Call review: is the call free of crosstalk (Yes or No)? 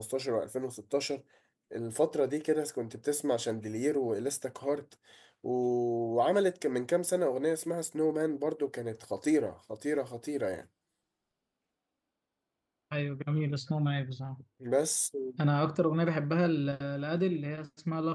Yes